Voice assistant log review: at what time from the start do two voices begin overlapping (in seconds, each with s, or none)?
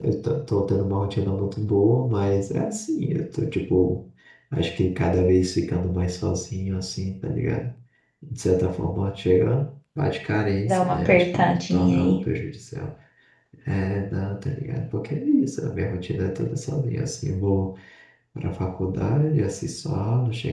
10.7 s